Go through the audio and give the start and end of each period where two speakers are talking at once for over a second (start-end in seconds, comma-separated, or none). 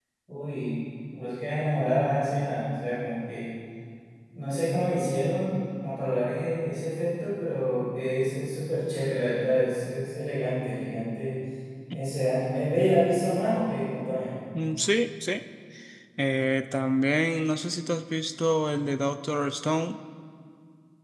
none